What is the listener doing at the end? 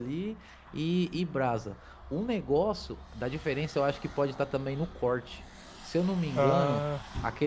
listening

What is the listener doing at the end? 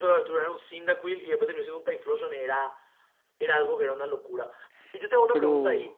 listening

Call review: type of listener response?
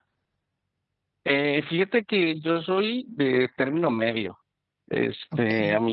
listening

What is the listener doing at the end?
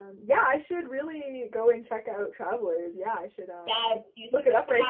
taking over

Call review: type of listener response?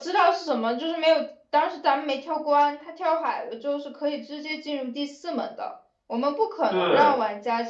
listening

